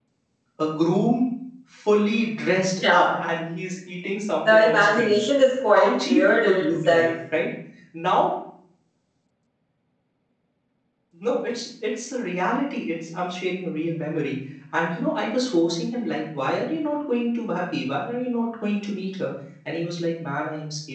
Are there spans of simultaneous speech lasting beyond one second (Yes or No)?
Yes